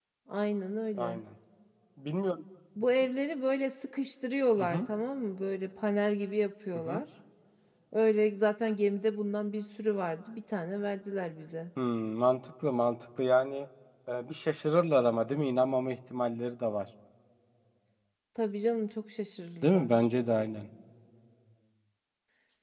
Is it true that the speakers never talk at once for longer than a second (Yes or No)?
Yes